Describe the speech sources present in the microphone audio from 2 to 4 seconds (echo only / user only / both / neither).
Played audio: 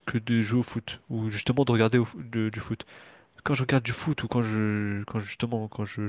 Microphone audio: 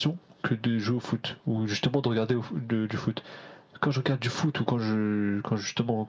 echo only